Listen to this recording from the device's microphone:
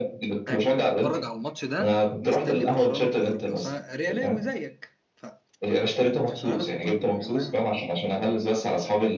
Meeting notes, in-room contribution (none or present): present